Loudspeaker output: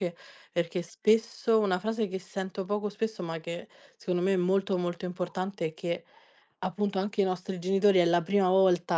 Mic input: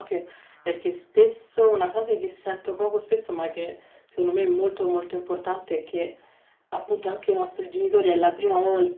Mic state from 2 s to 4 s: echo only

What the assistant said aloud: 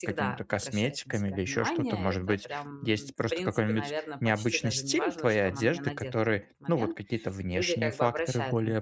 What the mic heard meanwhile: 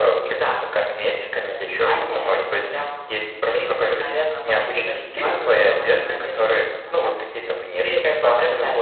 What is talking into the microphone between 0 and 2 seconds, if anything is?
echo only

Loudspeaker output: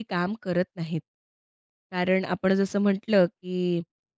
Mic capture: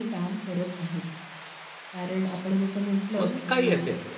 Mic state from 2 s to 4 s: both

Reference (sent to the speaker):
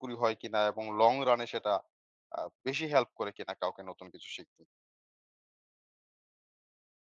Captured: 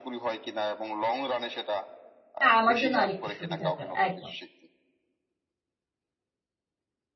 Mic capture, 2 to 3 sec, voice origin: both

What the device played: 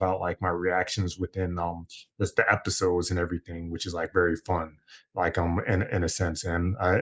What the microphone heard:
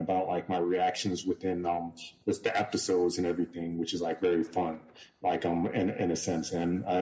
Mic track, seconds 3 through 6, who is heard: echo only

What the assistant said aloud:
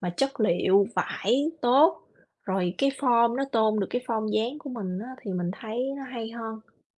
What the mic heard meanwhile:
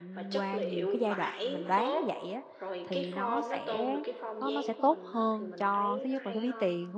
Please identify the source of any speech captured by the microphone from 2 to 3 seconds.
both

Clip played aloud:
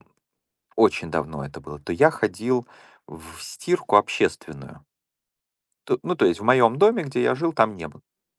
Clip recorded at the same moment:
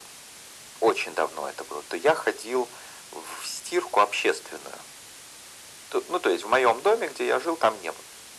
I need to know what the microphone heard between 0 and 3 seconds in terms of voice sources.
echo only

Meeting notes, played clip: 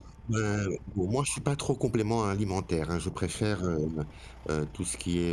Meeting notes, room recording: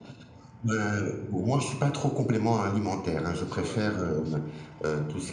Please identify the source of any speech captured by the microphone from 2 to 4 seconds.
both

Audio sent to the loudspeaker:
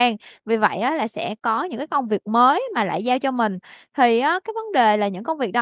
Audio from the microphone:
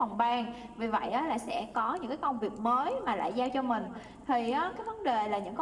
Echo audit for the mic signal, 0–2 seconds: echo only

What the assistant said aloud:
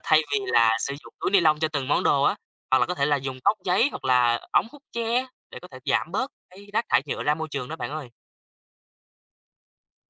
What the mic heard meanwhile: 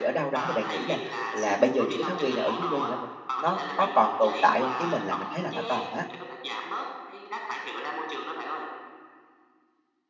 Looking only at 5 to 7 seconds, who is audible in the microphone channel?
both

